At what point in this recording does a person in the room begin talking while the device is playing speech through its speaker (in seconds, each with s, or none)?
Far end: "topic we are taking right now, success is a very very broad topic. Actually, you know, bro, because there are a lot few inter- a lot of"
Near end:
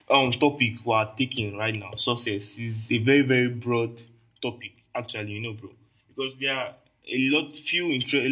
none